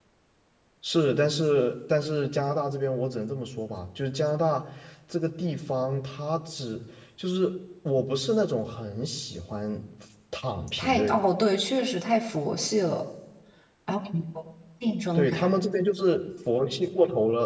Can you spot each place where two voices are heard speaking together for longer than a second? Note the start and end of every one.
none

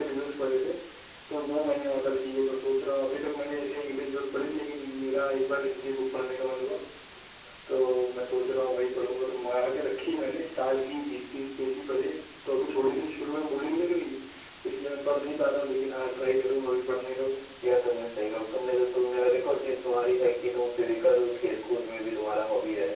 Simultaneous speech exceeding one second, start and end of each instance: none

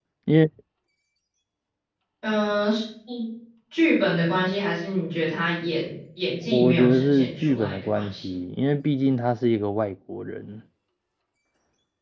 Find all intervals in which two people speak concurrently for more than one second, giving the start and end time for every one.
6.5-8.3

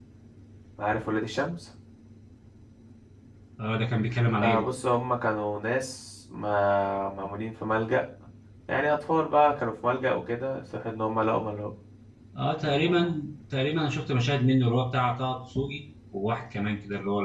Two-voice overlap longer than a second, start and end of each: none

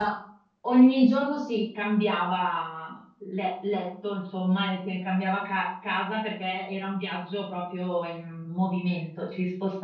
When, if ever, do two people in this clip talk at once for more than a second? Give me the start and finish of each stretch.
none

